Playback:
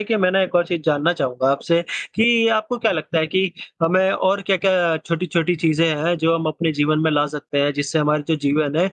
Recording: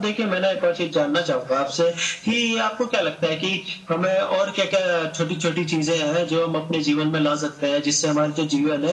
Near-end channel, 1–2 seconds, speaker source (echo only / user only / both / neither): echo only